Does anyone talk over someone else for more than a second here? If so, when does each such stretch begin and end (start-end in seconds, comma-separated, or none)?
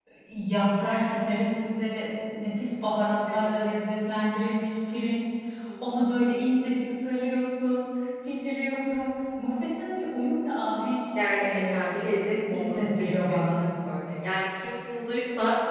11.4-13.6